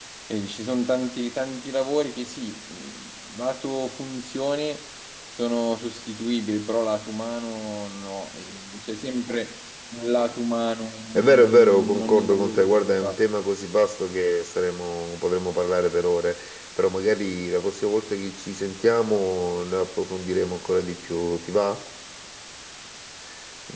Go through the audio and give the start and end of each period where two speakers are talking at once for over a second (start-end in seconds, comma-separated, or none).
11.2-13.2